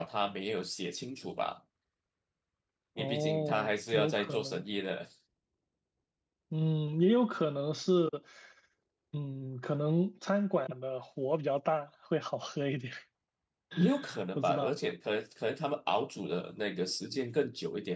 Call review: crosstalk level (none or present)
present